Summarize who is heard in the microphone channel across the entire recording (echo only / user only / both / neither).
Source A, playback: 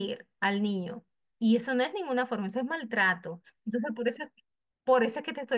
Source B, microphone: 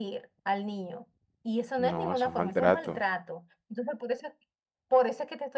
both